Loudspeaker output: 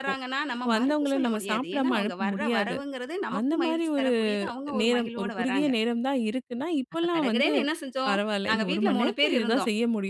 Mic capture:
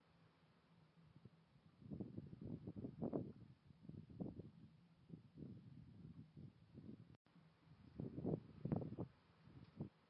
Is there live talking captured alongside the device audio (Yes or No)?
No